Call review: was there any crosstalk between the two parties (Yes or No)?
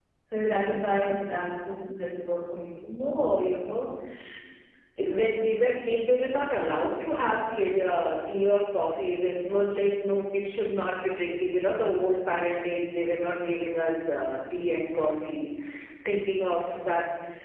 No